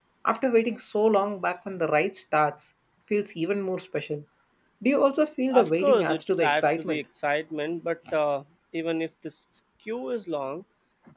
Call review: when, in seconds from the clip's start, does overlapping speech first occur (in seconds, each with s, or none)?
5.5 s